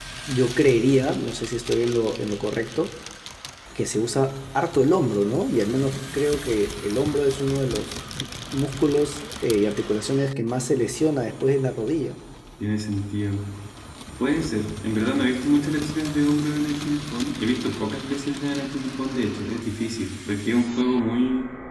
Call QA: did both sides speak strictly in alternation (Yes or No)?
Yes